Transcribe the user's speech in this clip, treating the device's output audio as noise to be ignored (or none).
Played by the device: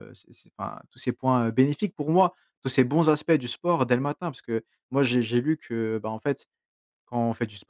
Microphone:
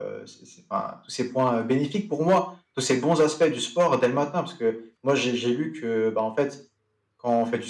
none